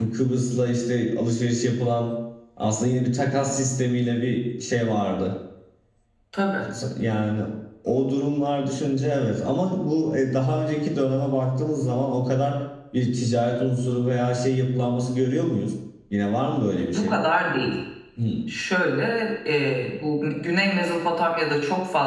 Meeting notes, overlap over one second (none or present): none